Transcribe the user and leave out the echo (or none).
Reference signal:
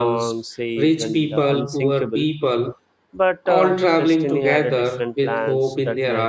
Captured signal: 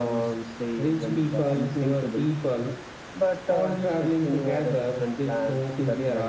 none